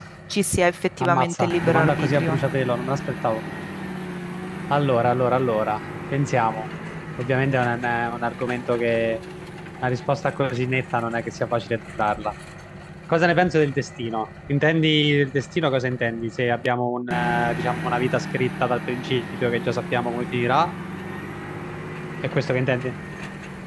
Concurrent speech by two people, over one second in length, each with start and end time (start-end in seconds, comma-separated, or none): 1.0-2.4